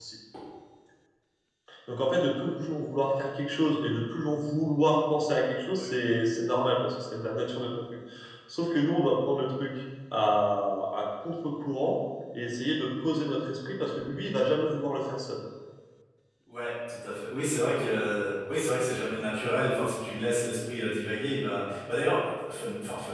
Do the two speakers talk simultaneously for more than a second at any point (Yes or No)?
No